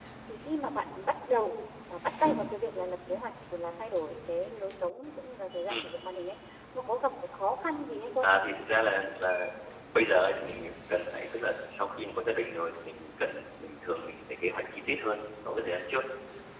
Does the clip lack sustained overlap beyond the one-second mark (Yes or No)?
Yes